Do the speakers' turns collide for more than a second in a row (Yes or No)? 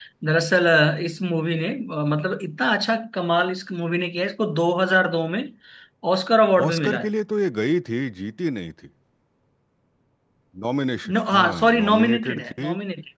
Yes